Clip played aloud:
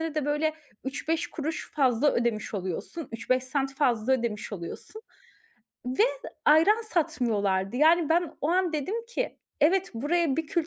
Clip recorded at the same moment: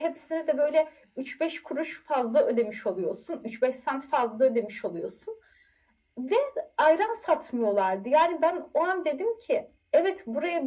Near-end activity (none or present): none